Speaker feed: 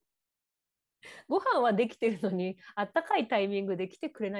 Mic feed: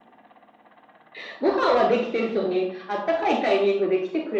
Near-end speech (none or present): none